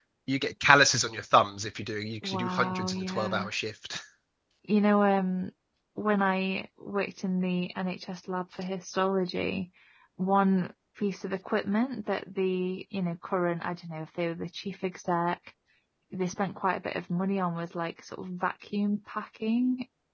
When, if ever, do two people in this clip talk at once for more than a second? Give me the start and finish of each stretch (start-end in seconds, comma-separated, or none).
2.2-3.5